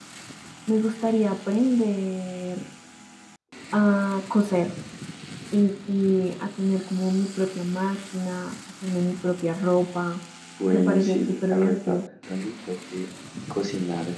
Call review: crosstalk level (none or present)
present